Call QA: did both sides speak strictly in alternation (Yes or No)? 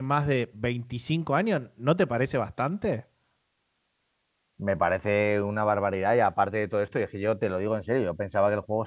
Yes